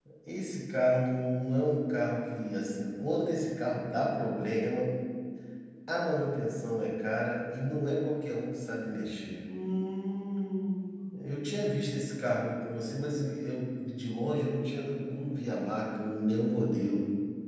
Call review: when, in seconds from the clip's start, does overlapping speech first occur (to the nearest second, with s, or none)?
none